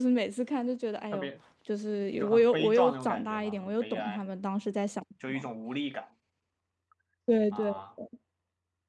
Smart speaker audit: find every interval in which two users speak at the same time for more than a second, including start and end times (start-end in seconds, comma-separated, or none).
2.2-4.2